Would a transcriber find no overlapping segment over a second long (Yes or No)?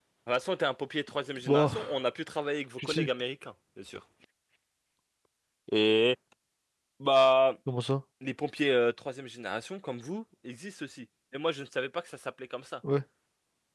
Yes